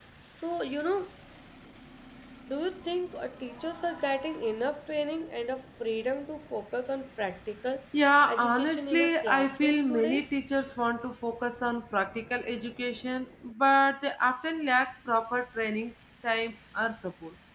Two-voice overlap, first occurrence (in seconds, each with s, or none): 8.2 s